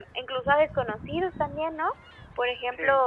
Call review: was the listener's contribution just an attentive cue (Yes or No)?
Yes